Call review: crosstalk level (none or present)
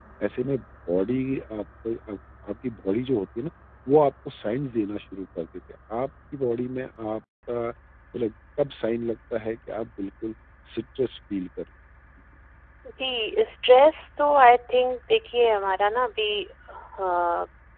none